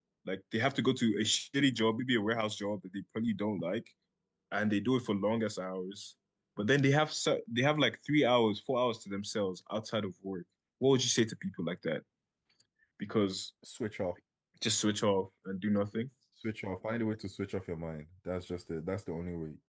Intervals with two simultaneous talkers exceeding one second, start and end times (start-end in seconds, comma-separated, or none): none